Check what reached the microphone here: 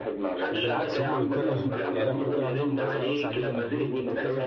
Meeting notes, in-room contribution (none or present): present